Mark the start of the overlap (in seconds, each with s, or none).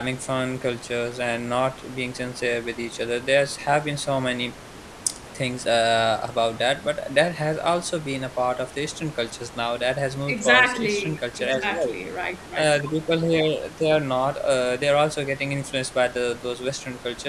10.3 s